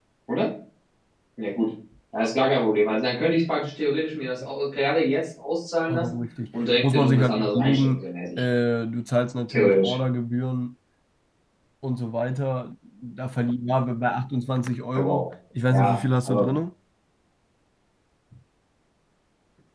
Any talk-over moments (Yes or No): Yes